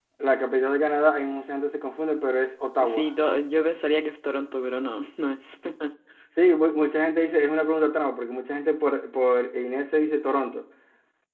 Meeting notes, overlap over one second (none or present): none